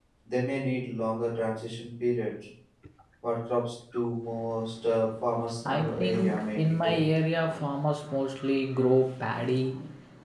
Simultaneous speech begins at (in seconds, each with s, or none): 5.7 s